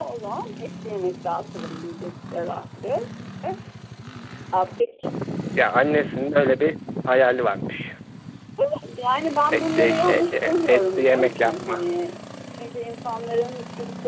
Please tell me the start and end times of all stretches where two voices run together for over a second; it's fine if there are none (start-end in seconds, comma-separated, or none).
9.6-11.8